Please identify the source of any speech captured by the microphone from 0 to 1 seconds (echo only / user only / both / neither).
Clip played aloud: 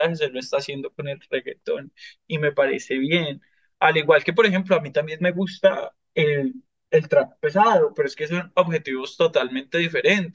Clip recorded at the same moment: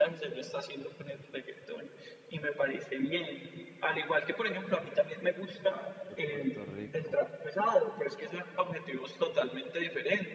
echo only